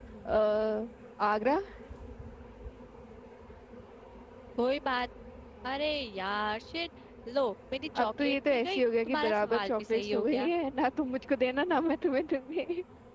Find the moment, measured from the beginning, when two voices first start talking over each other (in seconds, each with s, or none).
8.0 s